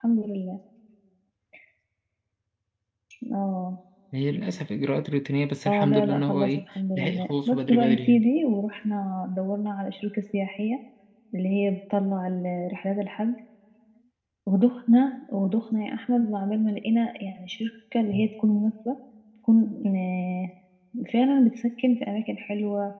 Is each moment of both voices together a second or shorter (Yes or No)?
No